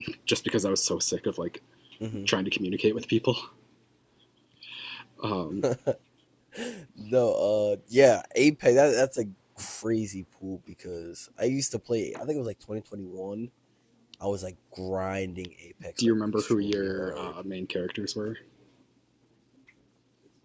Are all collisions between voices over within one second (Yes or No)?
No